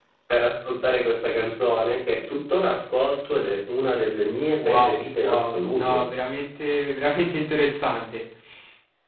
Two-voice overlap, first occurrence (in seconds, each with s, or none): 4.6 s